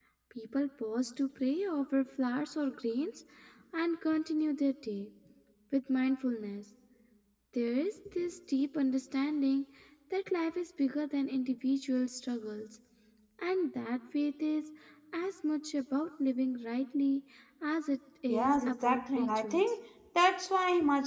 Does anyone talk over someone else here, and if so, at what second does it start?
18 s

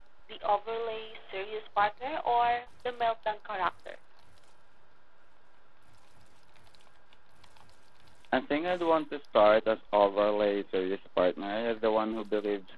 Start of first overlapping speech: none

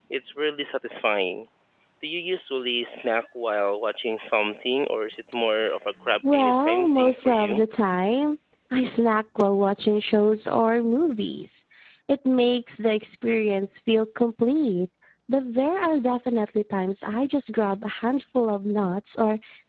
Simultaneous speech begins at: 6 s

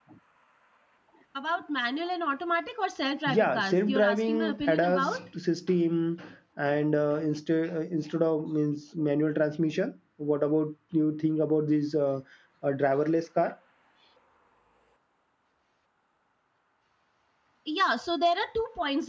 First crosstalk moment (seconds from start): 3 s

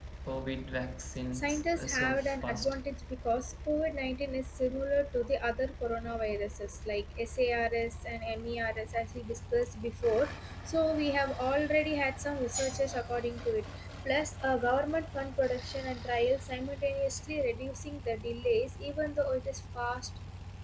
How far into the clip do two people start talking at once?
1 s

